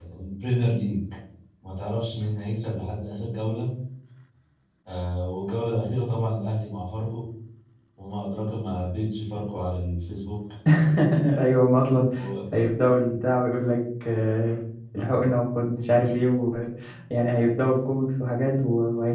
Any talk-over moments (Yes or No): No